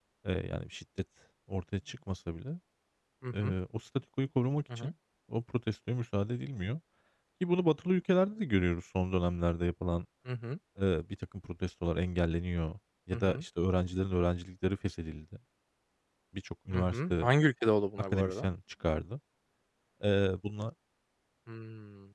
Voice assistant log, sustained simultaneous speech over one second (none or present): none